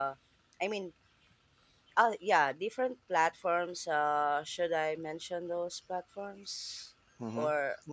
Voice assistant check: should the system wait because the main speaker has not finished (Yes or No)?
No